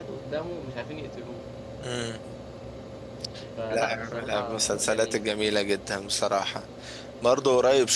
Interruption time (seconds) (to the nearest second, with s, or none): 4 s